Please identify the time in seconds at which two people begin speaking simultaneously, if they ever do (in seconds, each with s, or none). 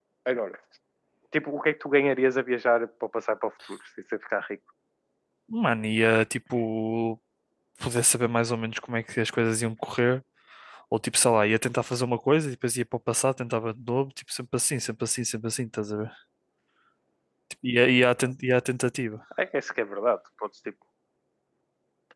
none